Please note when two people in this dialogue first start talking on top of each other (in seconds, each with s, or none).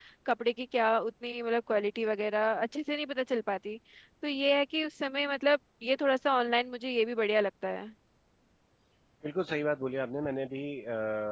none